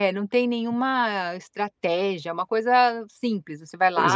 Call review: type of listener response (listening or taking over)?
taking over